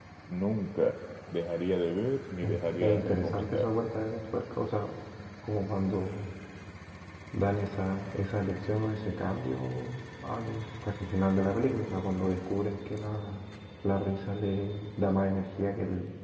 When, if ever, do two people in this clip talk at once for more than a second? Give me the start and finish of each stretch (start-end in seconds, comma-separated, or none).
2.4-3.7